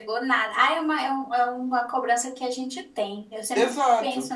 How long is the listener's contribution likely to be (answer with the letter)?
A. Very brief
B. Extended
B